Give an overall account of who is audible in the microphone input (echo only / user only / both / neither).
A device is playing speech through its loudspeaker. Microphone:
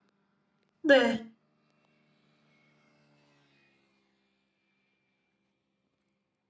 user only